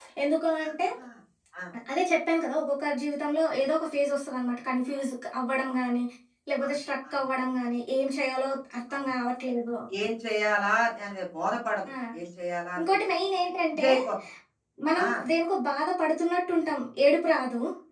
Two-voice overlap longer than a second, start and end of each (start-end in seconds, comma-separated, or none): none